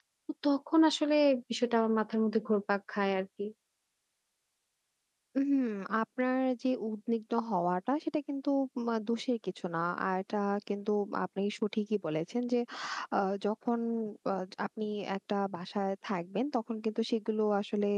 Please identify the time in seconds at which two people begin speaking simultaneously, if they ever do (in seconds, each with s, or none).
none